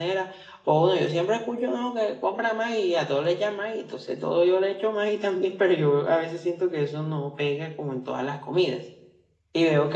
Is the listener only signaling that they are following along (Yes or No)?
No